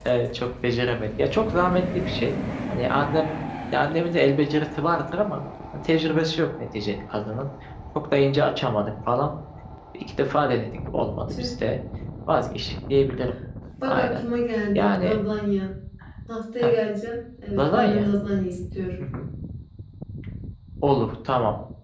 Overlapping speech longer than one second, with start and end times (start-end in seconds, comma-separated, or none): none